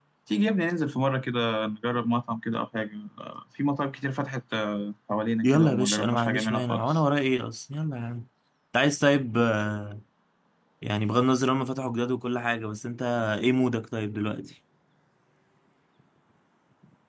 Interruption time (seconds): 5 s

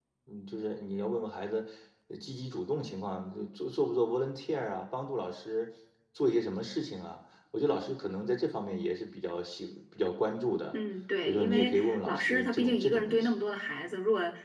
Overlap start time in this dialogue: 11 s

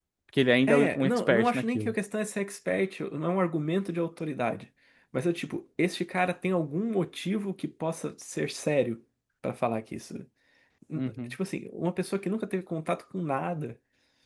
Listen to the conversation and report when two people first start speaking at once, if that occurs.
1 s

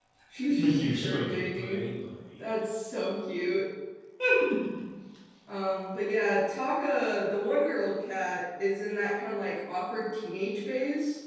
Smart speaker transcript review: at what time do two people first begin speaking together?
1 s

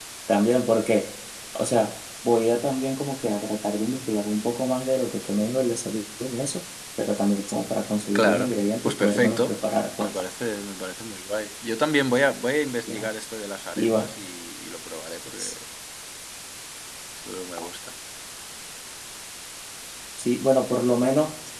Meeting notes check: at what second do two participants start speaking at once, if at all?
8 s

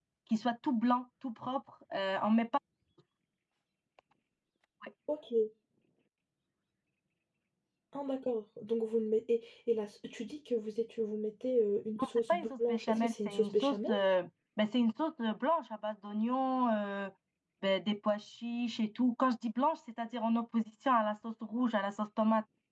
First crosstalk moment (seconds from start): 12 s

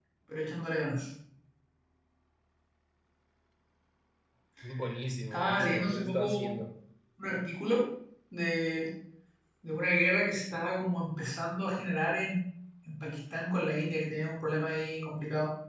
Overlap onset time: 5 s

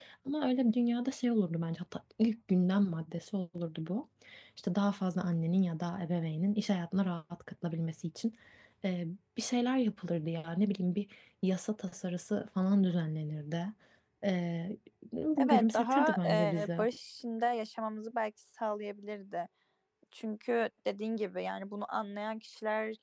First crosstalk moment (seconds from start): 15 s

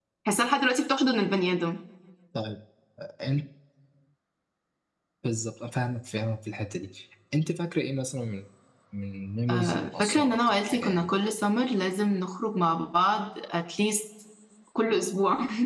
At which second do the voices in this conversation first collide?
9 s

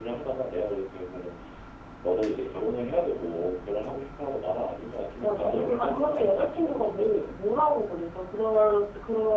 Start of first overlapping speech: 5 s

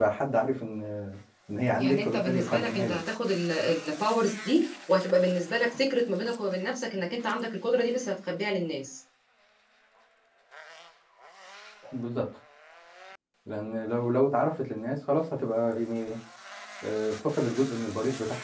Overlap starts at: 2 s

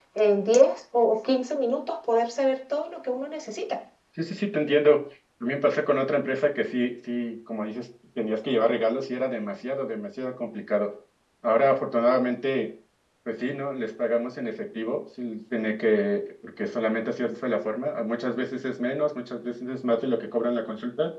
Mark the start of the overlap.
none

